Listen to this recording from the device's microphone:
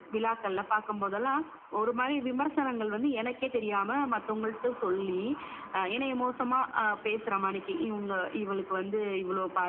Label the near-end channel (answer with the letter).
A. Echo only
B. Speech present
A